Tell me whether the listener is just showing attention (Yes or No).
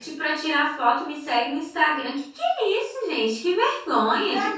No